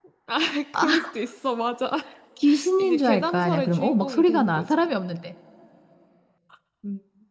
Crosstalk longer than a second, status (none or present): present